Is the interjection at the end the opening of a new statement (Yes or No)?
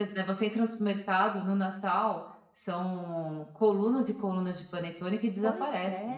Yes